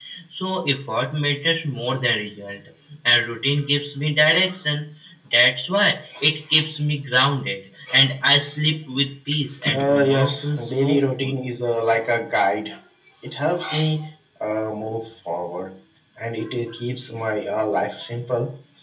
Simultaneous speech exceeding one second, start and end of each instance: 9.7-11.3

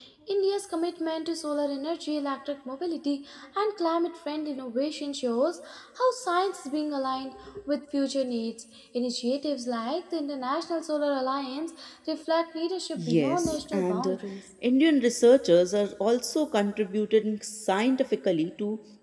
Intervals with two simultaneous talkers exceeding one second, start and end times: 13.0-14.2

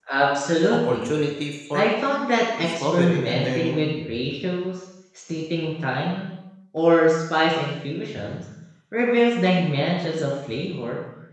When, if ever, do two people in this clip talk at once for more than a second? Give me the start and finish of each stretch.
2.6-3.8

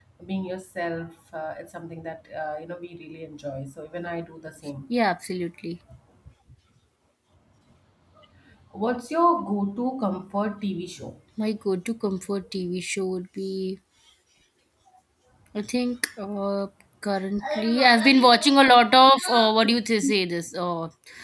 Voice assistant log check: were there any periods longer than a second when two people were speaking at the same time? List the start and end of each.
none

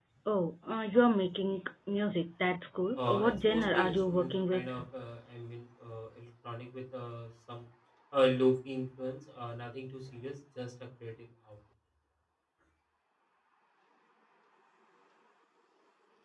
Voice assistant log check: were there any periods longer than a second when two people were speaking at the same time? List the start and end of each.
3.0-4.7

